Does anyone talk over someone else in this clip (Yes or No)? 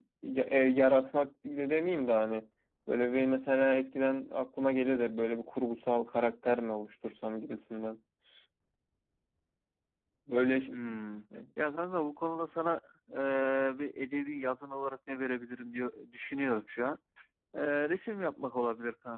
No